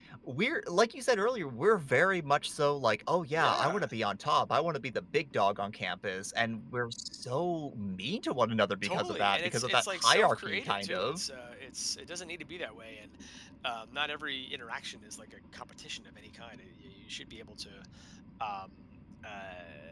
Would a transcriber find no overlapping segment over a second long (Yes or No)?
No